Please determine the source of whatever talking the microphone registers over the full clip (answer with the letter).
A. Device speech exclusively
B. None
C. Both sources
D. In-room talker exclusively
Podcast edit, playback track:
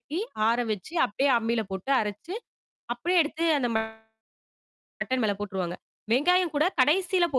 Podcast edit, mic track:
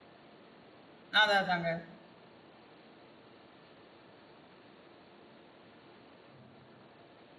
D